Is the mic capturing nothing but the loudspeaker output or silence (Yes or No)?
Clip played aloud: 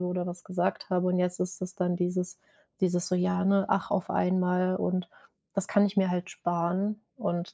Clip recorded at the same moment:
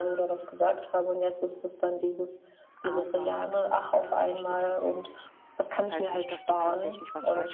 No